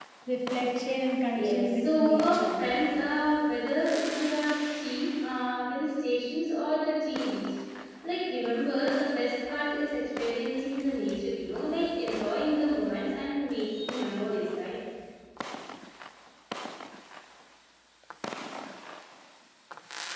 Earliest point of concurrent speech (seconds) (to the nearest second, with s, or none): 1 s